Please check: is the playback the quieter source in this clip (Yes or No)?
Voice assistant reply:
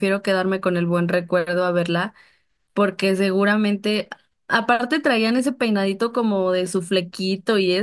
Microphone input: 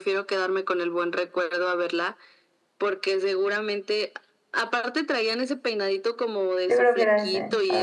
Yes